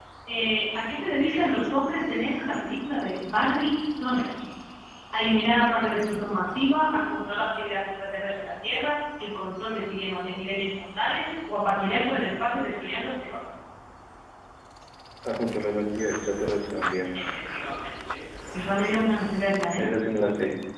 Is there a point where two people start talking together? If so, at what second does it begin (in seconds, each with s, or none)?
none